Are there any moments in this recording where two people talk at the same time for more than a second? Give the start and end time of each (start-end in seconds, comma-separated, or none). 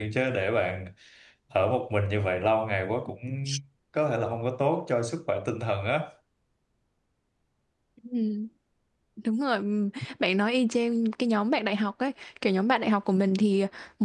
none